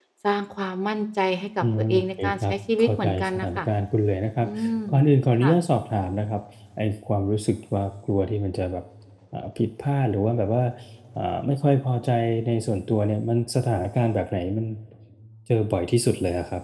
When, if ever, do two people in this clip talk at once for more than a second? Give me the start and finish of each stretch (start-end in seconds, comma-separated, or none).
1.9-3.6